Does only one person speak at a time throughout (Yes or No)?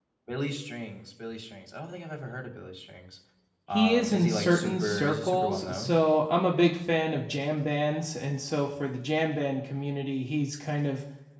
No